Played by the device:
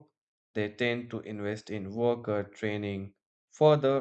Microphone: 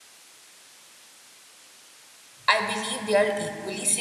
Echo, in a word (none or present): none